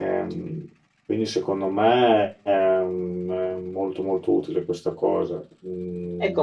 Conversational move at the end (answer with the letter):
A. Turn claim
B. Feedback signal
A